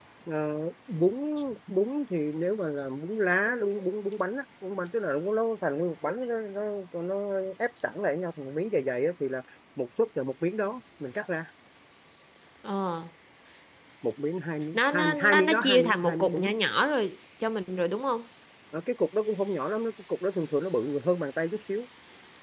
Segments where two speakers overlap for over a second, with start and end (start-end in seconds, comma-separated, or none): 14.7-16.5